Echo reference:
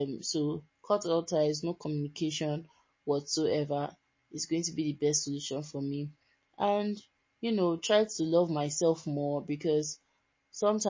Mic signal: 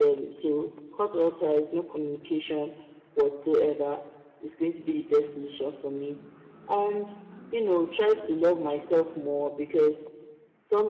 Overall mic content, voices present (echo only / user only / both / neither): echo only